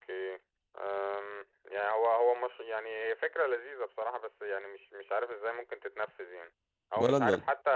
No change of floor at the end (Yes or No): Yes